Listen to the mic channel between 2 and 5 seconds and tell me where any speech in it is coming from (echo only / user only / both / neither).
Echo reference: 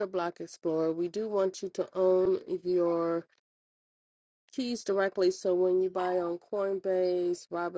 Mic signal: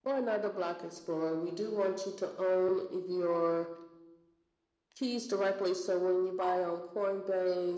echo only